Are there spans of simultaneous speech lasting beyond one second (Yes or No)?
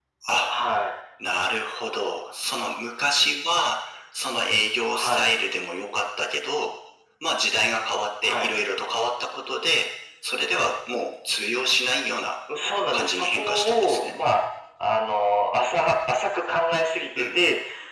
Yes